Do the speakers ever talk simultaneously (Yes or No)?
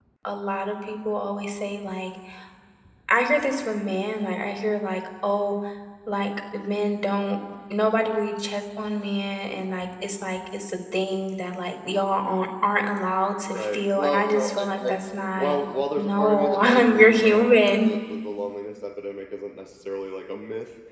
Yes